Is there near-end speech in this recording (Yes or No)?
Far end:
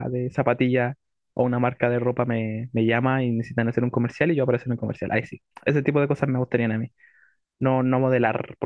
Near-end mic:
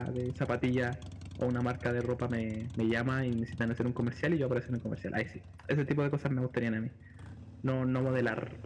No